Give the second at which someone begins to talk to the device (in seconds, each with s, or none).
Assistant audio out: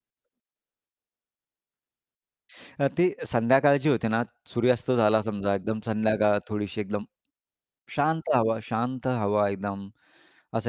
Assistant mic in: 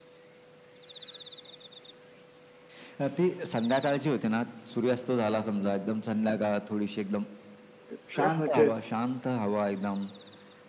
7.9 s